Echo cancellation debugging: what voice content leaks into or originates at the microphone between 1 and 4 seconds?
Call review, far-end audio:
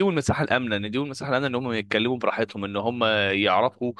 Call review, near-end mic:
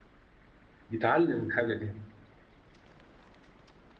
user only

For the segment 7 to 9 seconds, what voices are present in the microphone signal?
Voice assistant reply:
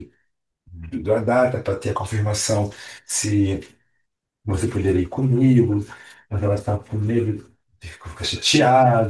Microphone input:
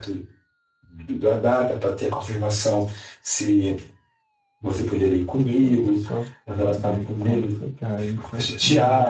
both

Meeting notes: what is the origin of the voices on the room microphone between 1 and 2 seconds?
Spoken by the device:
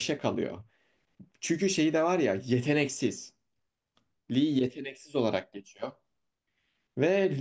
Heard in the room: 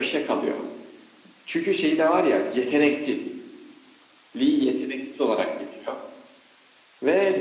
echo only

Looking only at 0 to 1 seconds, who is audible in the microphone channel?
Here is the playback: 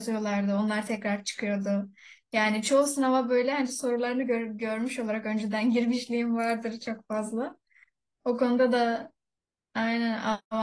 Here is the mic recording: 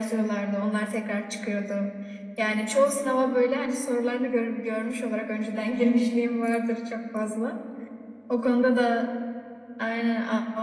echo only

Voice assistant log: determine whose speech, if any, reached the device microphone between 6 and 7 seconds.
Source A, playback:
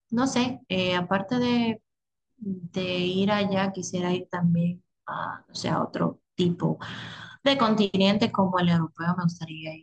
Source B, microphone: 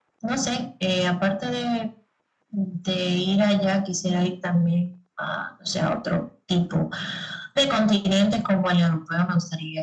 echo only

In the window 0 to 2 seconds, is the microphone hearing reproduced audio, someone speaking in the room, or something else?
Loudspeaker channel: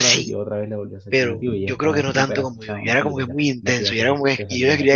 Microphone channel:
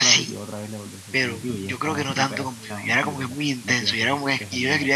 echo only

